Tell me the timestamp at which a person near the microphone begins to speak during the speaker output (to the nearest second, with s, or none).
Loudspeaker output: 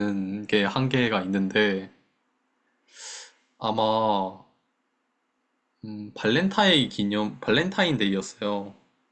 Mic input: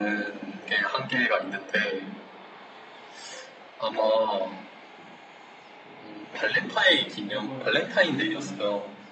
7 s